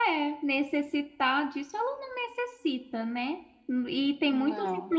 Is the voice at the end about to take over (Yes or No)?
No